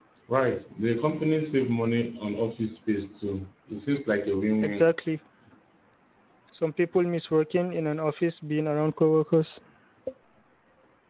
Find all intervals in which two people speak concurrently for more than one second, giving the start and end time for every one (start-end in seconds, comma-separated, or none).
none